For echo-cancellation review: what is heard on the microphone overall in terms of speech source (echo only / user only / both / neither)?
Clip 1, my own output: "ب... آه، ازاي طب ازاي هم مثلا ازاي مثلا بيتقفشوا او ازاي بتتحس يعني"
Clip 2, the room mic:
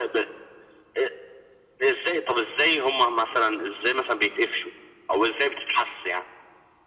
echo only